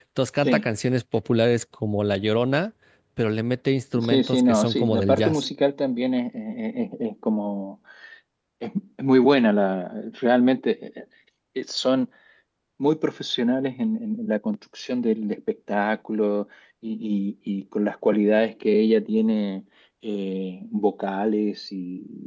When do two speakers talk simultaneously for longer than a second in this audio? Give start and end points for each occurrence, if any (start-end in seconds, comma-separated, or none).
4.1-5.5